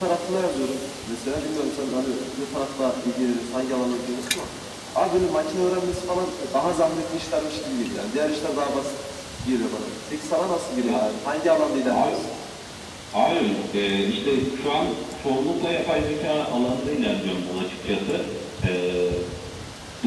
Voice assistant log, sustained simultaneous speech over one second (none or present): none